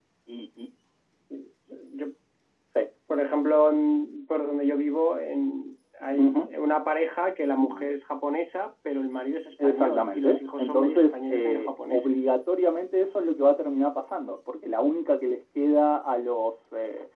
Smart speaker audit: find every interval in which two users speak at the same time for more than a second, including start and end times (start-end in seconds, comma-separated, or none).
9.6-12.2